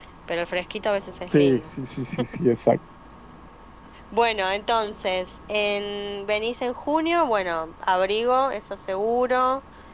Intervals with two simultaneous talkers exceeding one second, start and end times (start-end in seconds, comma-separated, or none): none